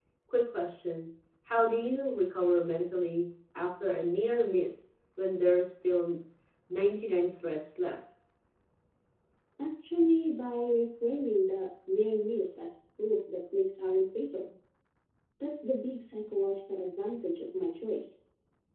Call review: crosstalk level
none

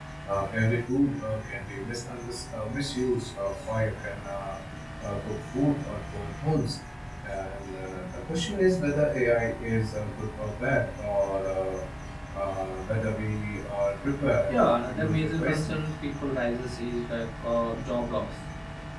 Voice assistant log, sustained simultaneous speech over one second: present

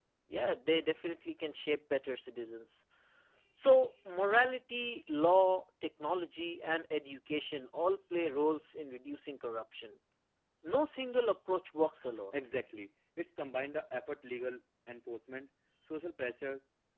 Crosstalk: none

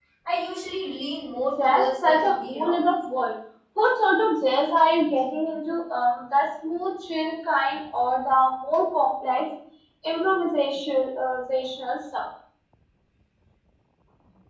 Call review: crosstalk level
present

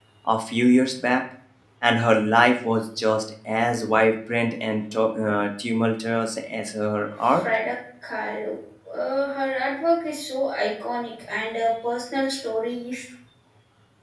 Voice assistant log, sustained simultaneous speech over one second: none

